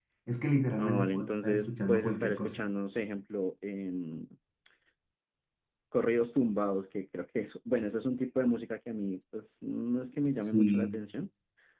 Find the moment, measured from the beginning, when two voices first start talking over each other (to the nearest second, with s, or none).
1 s